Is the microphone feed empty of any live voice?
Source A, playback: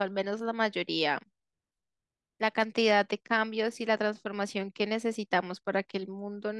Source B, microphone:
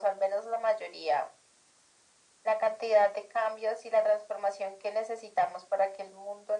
Yes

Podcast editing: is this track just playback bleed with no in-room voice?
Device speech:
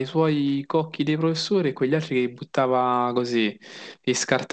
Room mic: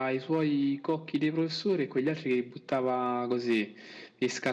Yes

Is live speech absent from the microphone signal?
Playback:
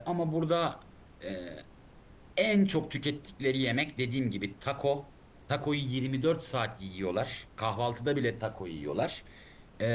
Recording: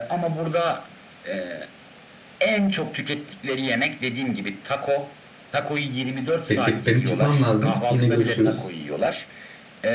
No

